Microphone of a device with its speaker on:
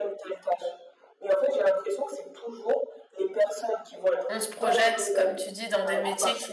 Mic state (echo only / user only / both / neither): both